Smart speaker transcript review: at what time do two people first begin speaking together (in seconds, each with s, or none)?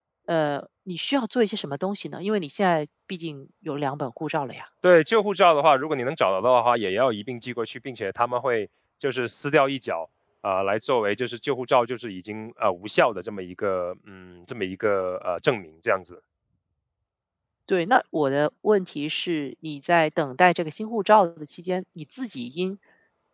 none